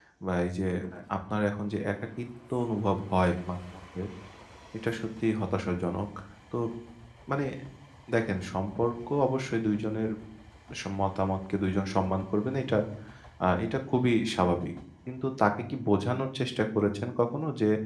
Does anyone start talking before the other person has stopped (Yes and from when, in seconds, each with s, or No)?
No